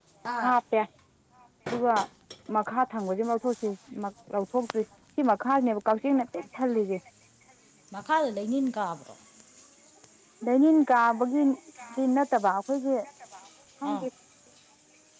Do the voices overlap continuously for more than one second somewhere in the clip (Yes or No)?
No